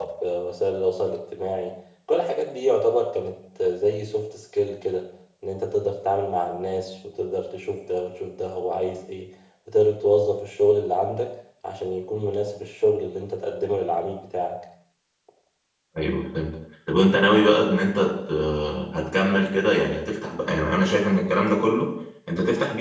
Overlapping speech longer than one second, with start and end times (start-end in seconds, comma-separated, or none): none